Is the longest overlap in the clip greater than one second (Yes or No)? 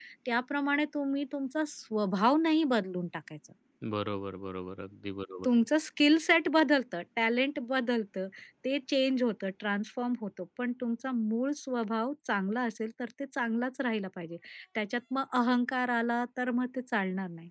No